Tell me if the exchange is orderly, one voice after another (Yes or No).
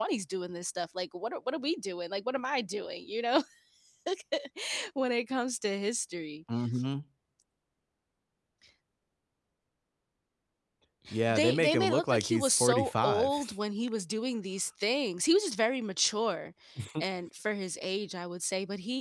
No